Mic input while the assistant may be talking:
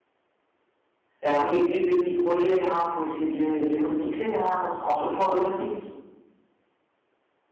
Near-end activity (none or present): present